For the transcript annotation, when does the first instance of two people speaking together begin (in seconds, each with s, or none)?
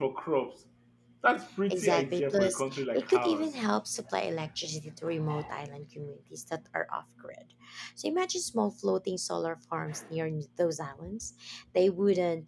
1.7 s